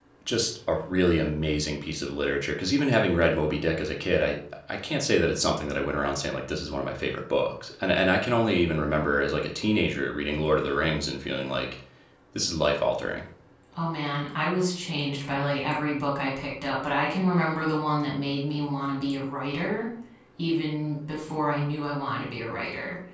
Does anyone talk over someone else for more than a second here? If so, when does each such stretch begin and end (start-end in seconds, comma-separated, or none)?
none